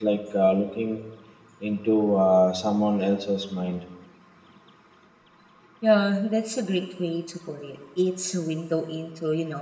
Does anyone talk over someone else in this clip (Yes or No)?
No